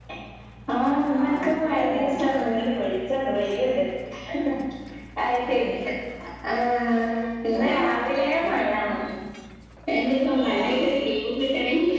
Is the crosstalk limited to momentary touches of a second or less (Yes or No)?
No